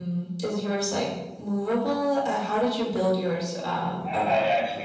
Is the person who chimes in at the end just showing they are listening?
No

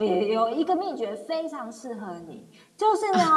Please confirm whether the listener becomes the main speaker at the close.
No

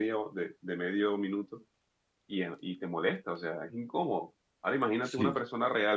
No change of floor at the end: Yes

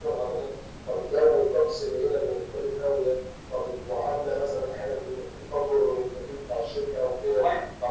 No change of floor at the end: Yes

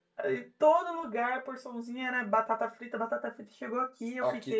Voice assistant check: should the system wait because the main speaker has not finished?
No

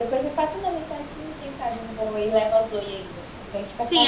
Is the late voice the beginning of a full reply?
Yes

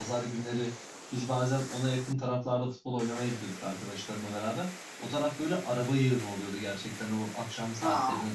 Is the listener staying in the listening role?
Yes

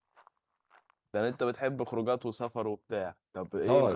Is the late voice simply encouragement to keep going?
No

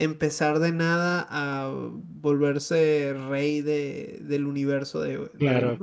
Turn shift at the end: No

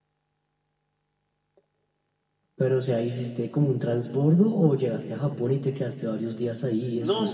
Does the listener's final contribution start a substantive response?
Yes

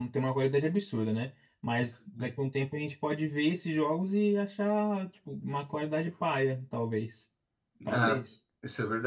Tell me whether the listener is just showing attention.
No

